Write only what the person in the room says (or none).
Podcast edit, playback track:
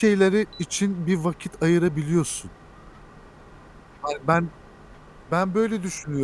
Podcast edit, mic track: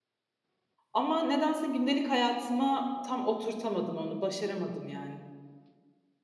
ama nedense gündelik hayatıma tam oturtamadım onu, başaramadım yani.